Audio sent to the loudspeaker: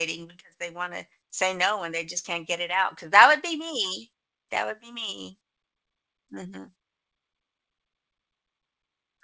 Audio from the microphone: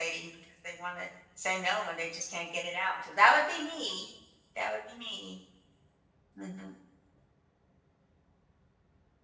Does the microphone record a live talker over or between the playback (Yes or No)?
No